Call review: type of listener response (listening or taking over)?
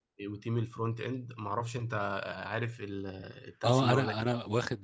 taking over